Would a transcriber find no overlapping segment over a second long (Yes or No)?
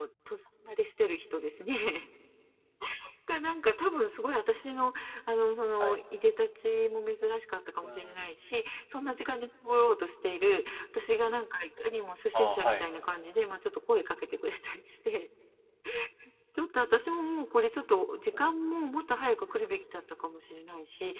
Yes